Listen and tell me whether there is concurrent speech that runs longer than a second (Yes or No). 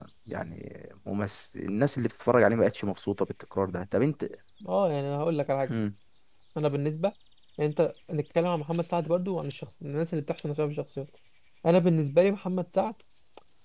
No